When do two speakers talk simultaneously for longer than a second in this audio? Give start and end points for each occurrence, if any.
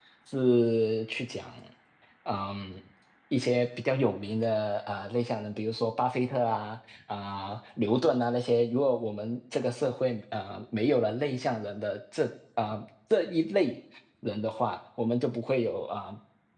none

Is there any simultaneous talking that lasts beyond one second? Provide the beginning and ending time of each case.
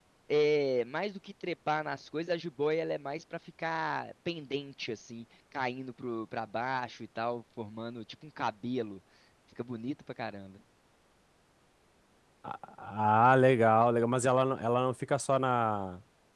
none

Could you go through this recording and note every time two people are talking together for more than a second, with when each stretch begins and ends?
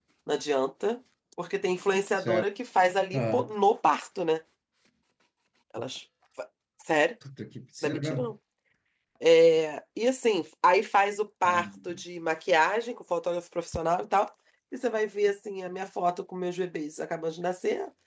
none

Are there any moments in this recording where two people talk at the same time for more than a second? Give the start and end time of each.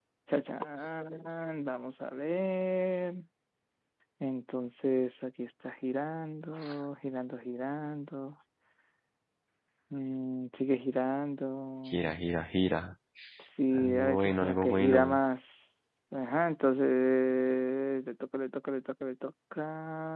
13.7-15.2

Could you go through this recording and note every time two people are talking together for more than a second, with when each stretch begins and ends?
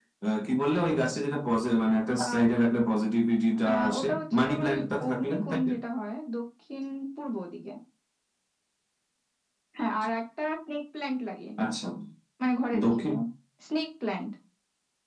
3.7-5.7

